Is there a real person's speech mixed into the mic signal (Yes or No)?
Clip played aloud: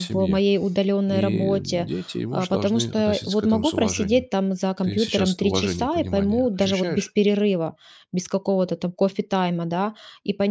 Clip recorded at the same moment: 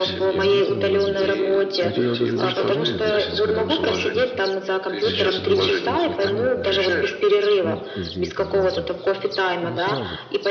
Yes